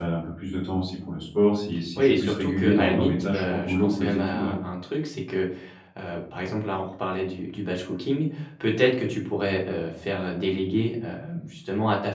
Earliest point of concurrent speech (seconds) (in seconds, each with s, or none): 2.0 s